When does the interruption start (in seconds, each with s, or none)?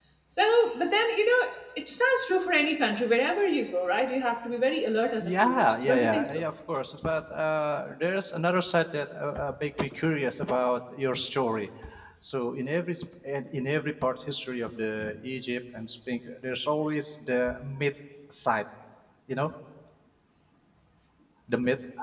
5.2 s